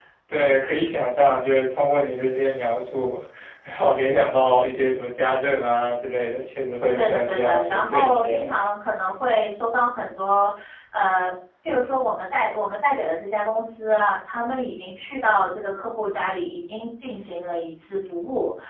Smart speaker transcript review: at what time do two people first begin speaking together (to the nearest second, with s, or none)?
7 s